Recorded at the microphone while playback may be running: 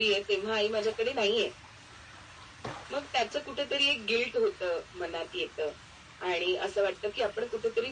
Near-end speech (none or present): none